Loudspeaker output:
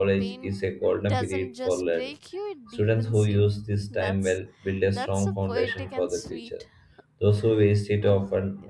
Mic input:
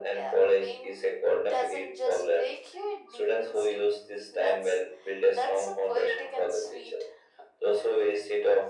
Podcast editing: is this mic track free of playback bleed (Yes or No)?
No